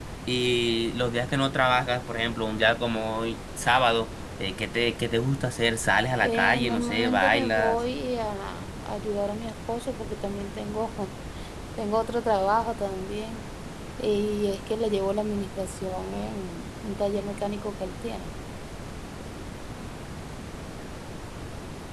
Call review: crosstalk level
present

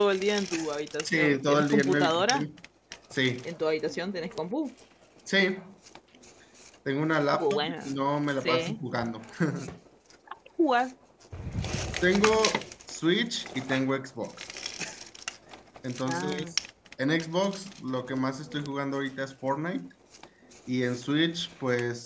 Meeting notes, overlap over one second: present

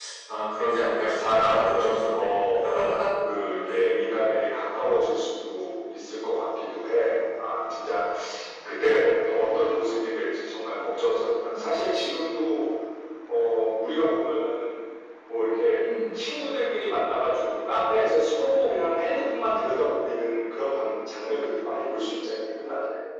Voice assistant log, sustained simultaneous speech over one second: present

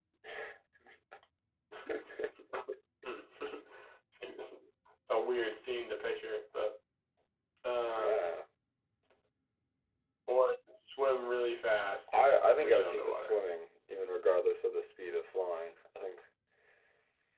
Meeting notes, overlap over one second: present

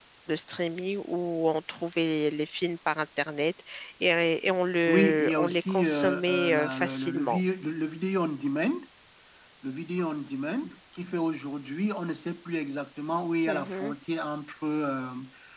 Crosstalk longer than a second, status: present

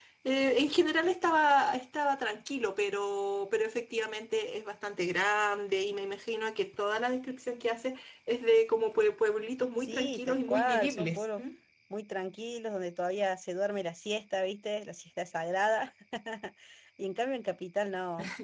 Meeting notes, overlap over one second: present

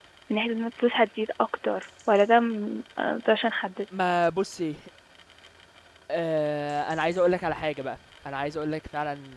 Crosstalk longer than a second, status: none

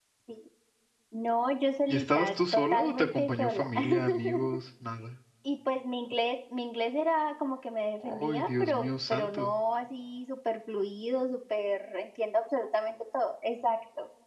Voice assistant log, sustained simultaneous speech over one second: present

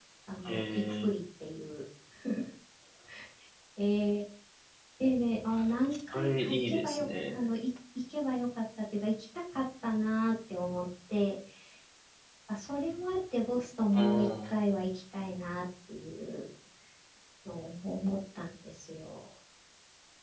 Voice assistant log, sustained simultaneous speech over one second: present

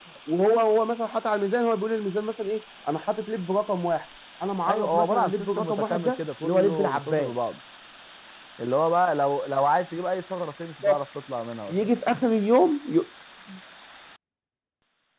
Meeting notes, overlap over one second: present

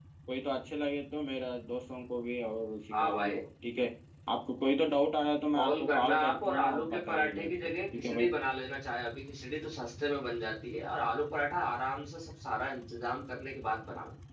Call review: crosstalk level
present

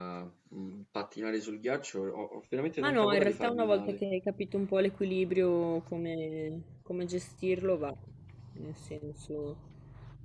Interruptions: present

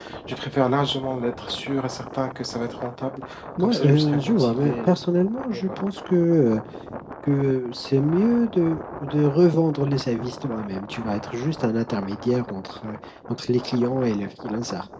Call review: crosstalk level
present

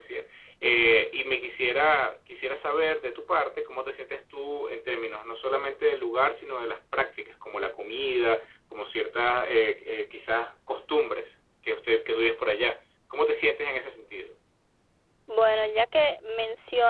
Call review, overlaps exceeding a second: none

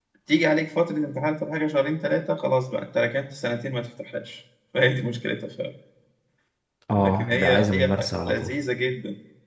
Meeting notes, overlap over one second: present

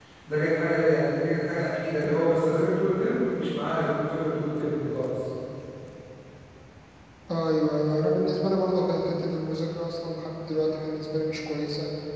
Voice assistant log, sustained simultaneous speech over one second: none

